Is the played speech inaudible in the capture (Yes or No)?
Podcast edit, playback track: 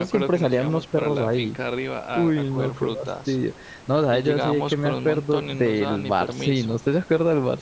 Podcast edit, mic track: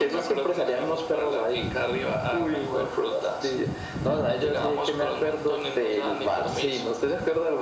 No